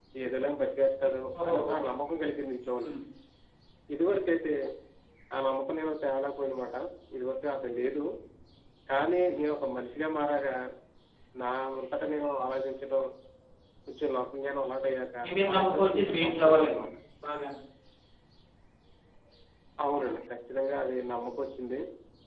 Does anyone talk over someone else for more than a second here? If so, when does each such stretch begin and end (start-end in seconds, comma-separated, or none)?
15.2-16.8